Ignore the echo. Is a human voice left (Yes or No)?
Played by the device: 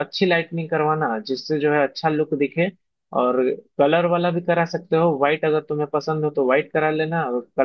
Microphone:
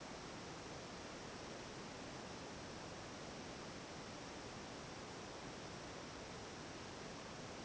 No